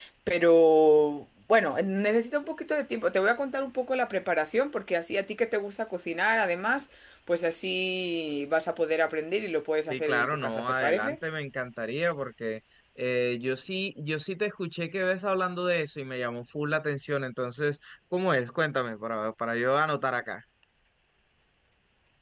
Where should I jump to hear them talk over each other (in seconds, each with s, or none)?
9.9 s